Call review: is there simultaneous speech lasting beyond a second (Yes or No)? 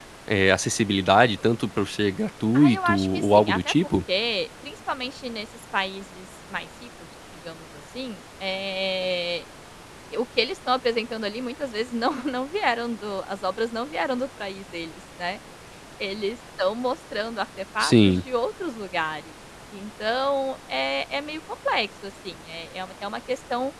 Yes